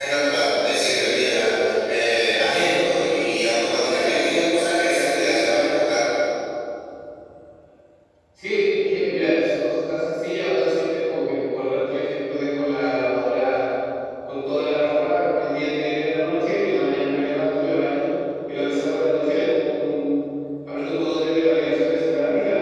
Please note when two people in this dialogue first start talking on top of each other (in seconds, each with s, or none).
none